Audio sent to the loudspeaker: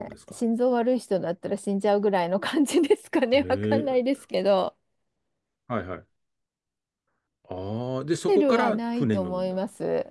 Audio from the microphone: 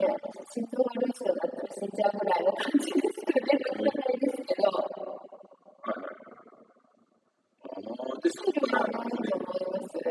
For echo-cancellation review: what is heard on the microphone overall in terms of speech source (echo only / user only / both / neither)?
echo only